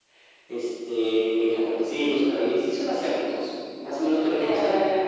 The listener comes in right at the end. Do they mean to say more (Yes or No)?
Yes